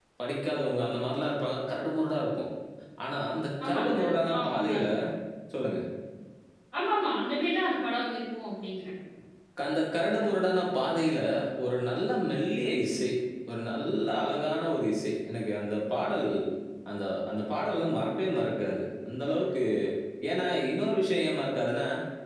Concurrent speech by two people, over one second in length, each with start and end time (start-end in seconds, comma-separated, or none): 3.6-4.9